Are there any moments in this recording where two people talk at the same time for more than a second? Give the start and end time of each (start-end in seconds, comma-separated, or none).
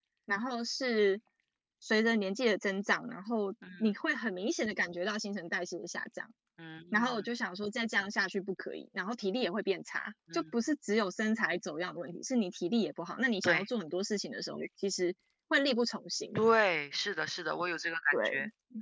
none